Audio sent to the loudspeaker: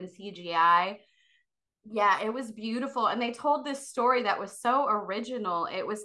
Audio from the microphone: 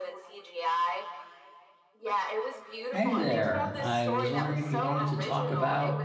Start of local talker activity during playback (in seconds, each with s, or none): 2.9 s